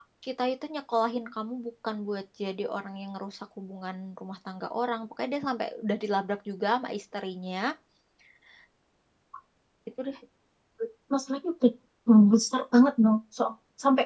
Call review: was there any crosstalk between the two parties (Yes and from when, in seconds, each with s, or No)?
No